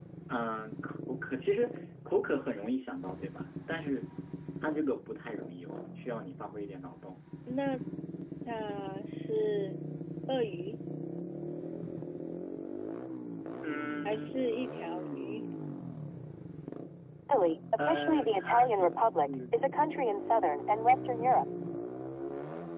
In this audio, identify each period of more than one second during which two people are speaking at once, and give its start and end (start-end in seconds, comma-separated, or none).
17.9-19.6